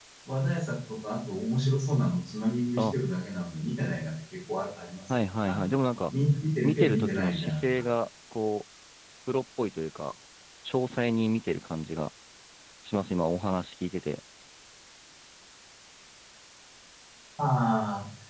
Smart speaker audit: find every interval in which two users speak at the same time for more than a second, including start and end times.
6.6-7.8

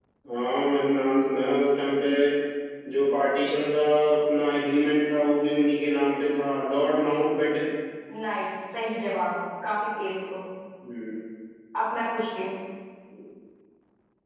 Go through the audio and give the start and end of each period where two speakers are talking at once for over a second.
none

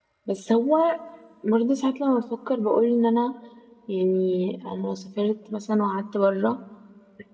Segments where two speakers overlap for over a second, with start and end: none

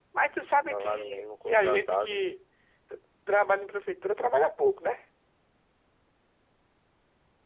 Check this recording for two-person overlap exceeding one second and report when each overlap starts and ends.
0.5-2.2

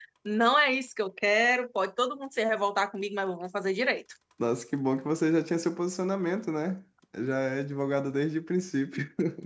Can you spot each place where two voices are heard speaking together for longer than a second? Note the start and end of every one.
none

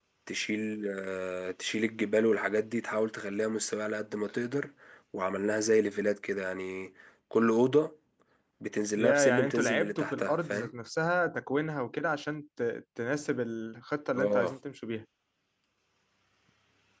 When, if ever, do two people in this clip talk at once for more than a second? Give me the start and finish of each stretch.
9.0-10.7

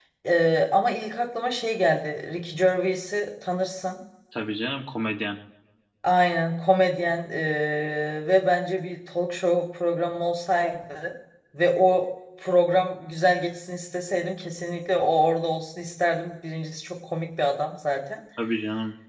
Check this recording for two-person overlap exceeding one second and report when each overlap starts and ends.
none

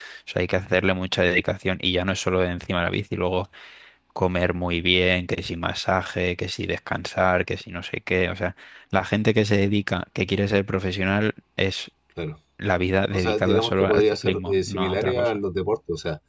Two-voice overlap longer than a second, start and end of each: 13.1-15.4

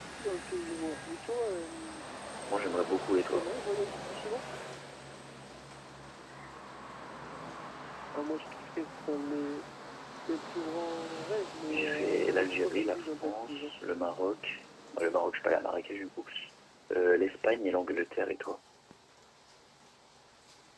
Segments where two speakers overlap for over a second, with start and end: 11.7-13.7

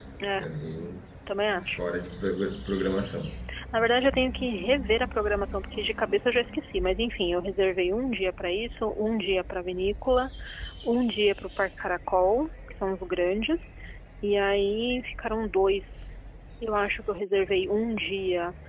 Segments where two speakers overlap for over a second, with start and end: none

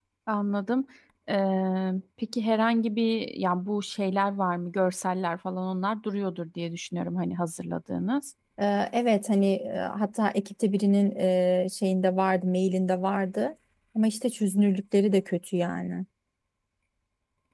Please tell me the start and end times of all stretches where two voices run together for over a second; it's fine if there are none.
none

